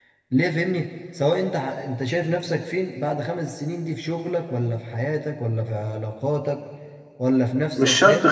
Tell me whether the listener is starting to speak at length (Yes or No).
Yes